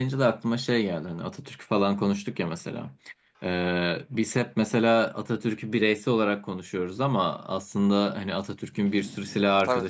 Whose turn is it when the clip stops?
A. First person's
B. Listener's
A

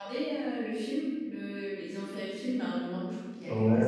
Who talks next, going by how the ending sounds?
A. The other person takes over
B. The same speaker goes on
A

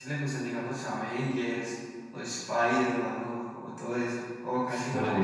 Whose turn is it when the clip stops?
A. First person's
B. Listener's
B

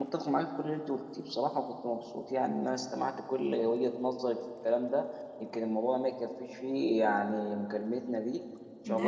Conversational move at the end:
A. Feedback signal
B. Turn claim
B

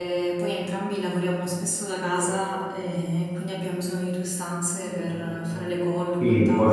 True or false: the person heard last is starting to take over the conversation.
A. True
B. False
A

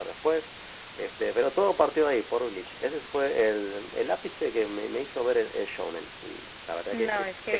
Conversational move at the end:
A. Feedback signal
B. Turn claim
B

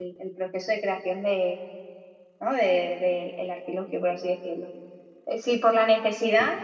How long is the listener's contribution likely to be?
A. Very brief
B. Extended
A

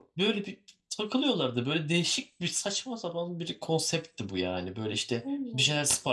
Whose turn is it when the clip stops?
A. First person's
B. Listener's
A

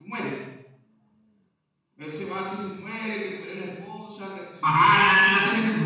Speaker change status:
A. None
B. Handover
B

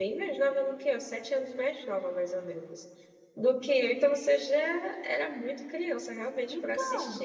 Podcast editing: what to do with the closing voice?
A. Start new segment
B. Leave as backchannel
A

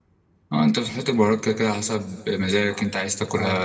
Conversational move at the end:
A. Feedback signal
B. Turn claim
B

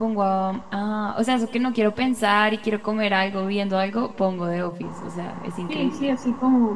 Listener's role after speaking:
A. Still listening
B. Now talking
B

